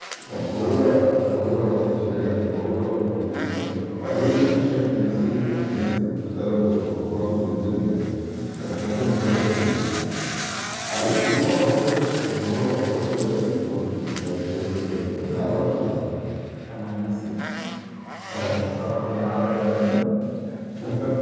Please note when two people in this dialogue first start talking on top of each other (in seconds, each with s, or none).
none